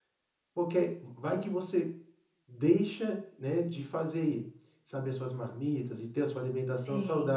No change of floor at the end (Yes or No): Yes